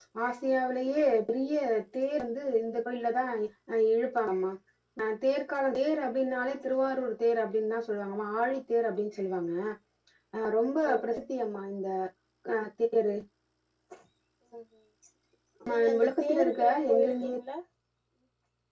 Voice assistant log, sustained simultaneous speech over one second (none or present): present